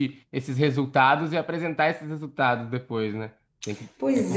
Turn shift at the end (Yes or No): Yes